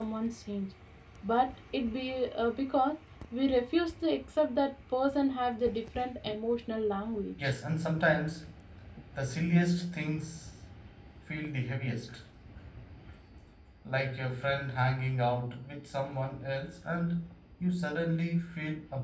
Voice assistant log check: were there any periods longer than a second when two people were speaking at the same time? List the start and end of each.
none

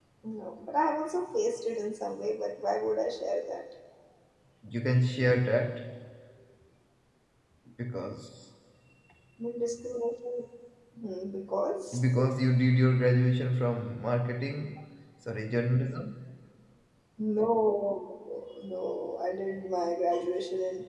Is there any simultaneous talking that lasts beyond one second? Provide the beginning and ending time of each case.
none

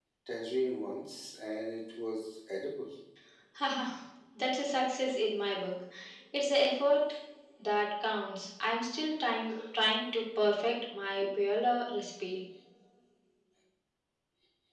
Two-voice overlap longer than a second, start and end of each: none

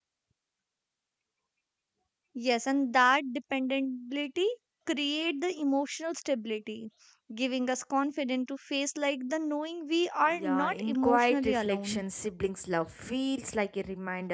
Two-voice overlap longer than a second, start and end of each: 10.3-12.0

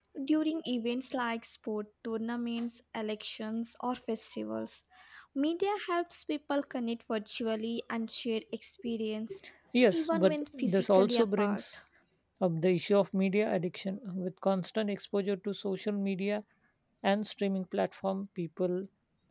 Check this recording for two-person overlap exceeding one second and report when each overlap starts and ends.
9.9-11.6

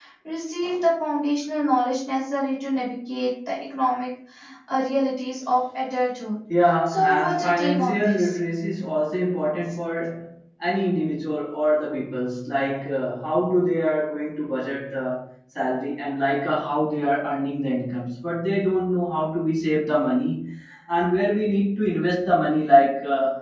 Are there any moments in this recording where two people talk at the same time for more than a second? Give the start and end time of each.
7.1-8.4

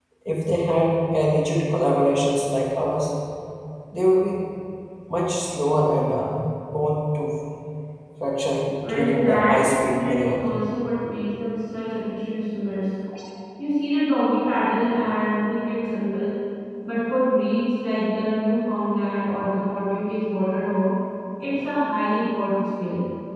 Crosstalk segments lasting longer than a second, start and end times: 8.8-10.5

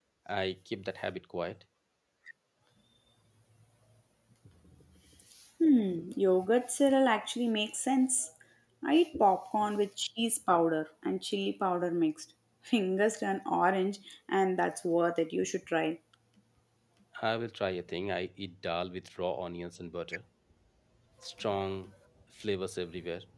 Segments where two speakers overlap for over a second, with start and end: none

